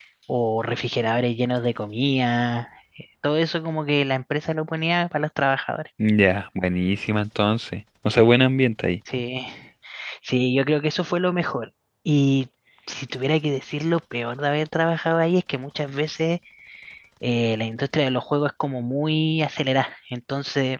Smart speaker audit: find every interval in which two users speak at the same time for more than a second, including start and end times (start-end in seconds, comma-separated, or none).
none